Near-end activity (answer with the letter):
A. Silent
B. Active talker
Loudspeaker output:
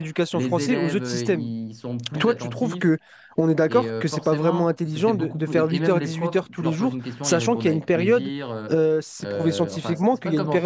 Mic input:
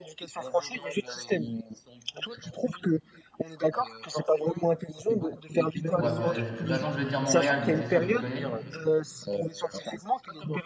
B